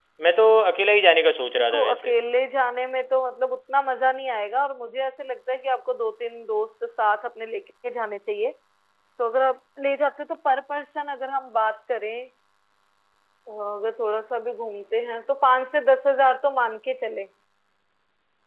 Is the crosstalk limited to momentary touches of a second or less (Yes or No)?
Yes